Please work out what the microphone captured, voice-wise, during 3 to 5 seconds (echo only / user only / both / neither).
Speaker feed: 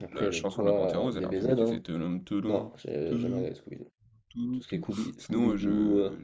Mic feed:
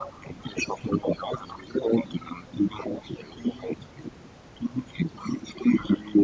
echo only